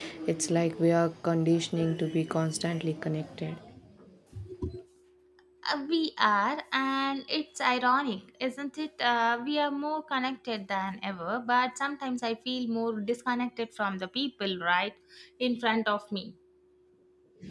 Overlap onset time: none

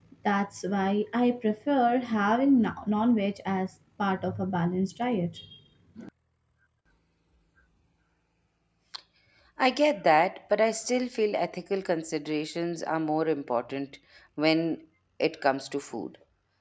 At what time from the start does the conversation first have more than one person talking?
none

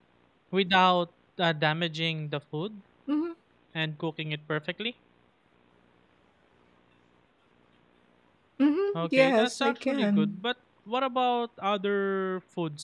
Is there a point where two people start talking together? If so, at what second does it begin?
8.9 s

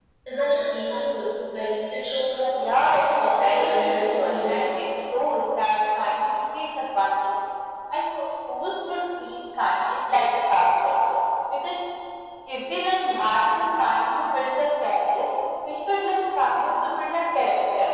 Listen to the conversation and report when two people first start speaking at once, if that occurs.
2.5 s

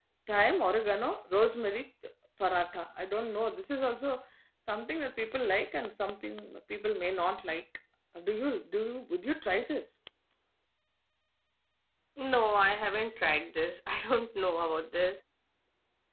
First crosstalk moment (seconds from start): none

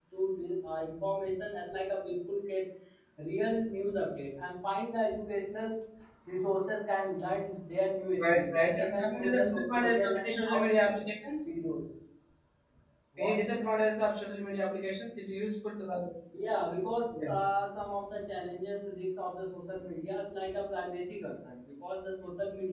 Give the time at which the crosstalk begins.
8.2 s

